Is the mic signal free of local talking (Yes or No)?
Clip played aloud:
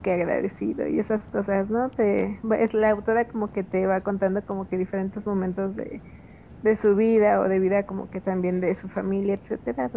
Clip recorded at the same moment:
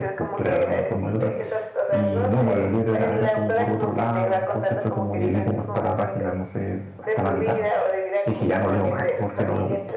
No